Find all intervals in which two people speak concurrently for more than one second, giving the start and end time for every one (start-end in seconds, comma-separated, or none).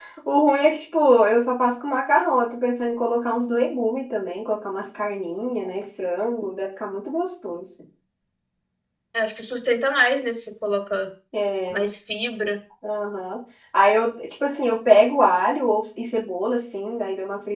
none